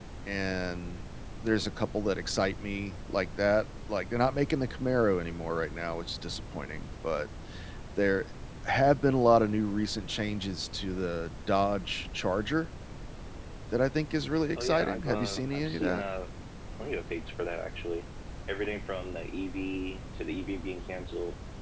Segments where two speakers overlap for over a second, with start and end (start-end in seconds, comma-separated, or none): 14.6-16.0